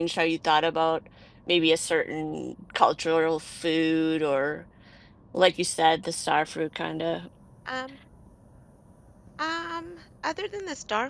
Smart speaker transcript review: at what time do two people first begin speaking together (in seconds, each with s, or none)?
none